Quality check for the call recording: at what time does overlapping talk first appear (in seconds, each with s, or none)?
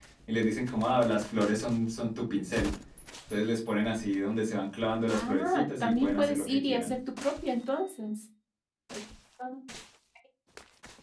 5.1 s